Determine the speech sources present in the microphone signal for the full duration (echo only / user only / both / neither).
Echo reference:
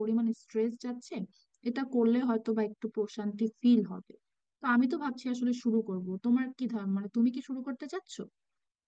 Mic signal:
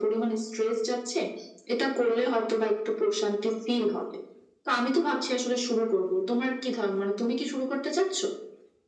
echo only